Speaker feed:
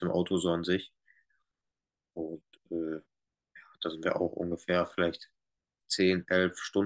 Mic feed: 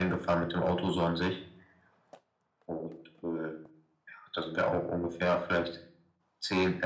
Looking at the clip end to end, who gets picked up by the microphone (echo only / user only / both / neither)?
echo only